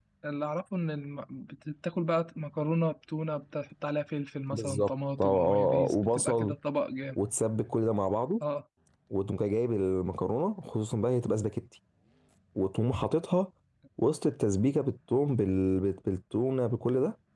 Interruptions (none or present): present